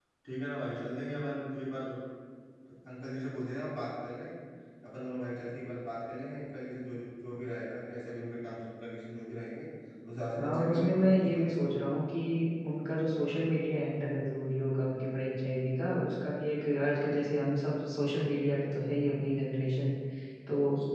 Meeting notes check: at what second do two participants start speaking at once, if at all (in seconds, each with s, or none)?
10.3 s